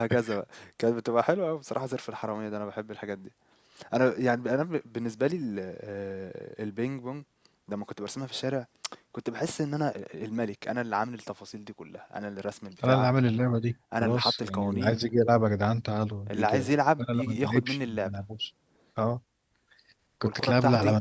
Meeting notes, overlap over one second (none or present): present